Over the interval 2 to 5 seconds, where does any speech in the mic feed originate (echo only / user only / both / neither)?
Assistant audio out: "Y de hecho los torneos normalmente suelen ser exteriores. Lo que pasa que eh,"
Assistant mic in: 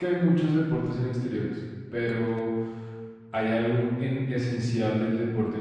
user only